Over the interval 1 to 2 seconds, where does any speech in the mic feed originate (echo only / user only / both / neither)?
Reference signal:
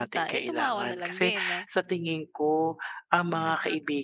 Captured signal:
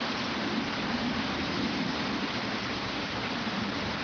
neither